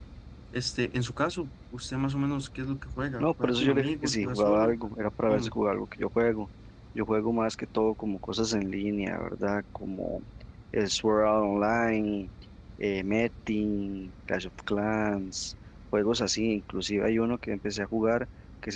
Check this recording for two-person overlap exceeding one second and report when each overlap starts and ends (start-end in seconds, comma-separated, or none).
3.2-4.8